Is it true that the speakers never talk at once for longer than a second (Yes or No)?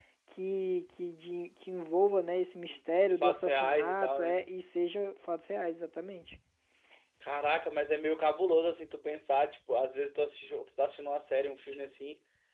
No